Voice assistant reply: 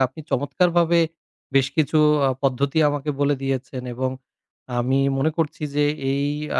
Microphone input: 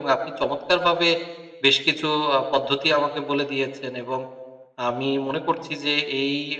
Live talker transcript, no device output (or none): none